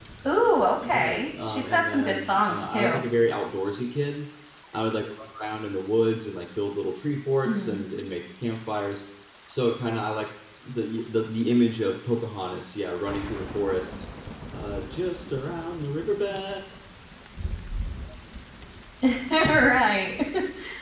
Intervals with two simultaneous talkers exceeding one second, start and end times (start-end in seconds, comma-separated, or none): 0.8-3.0